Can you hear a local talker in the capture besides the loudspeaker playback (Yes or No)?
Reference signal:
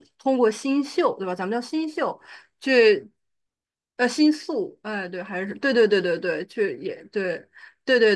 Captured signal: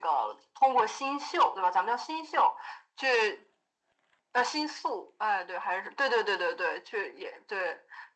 No